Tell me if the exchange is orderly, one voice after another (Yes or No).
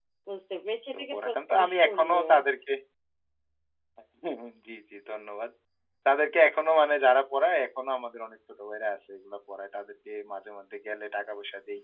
No